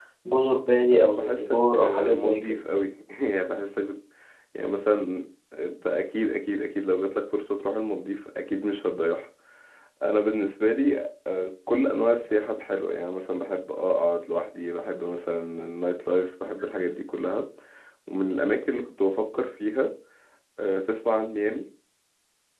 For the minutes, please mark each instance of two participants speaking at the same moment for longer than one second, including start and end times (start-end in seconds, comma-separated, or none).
0.9-2.6